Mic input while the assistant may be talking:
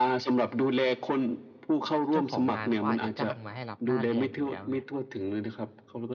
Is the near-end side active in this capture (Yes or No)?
Yes